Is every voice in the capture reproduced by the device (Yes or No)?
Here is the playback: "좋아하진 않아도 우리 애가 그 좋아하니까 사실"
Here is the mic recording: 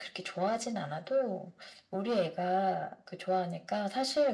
Yes